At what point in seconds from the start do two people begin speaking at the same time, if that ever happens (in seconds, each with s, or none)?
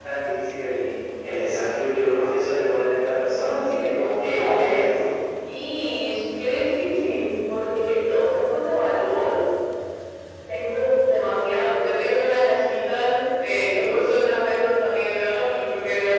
3.2 s